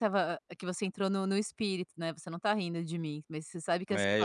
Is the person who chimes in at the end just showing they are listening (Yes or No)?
No